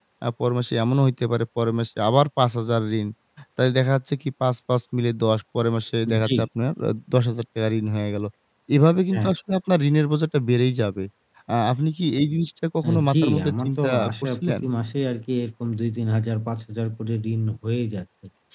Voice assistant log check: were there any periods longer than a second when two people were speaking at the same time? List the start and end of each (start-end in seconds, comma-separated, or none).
12.9-14.6